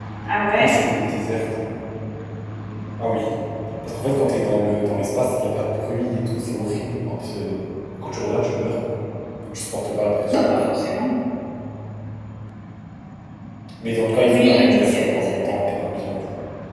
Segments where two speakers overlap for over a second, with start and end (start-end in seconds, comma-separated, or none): 14.3-15.5